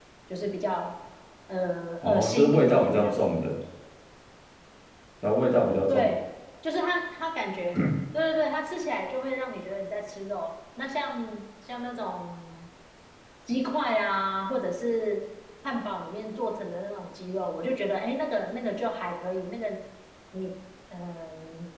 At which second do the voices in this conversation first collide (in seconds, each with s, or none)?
2.0 s